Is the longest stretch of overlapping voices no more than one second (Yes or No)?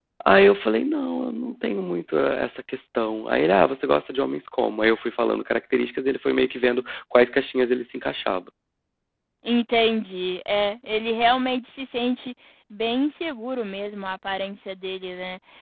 Yes